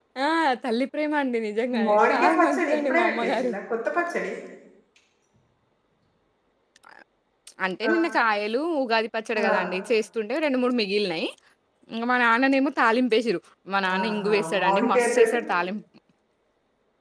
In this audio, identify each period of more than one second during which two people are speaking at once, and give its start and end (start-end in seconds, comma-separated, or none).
1.9-3.5, 14.0-15.4